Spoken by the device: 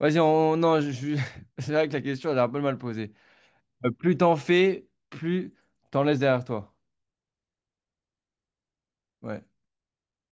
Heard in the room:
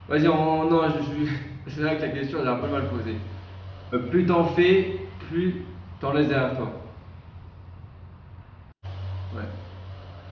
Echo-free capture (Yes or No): No